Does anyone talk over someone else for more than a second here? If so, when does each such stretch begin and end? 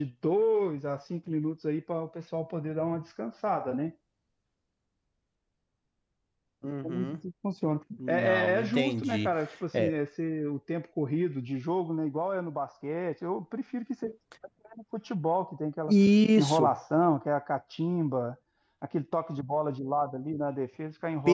8.1-9.3

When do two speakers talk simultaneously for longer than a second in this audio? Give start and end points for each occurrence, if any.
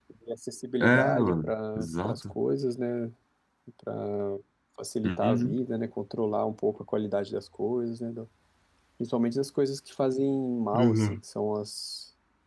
0.8-2.3

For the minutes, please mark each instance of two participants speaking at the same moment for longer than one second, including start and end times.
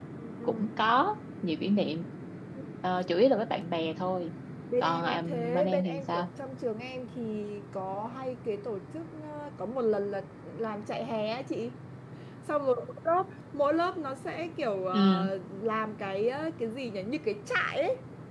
4.8-6.3

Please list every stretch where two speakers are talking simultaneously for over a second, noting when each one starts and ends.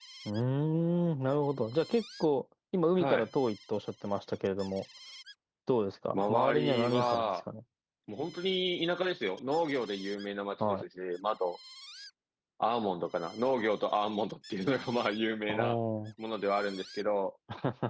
6.1-7.4

